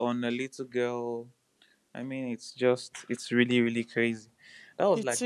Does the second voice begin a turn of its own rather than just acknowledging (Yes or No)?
No